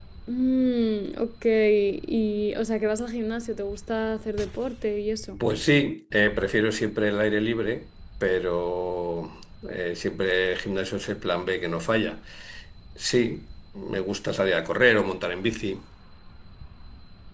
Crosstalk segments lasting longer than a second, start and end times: none

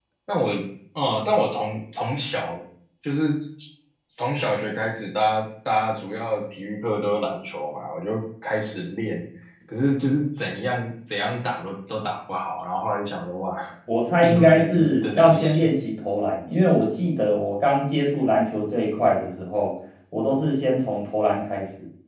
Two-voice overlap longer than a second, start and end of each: 14.2-15.7

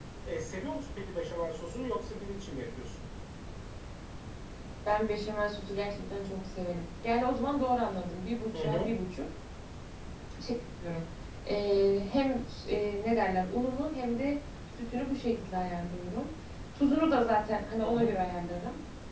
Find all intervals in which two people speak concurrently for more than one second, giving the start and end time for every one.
none

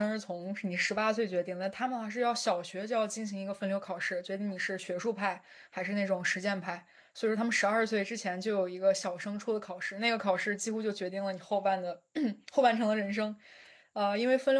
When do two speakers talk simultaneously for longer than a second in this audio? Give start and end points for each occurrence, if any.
none

